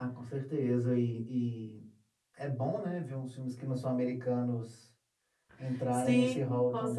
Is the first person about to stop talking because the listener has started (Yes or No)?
Yes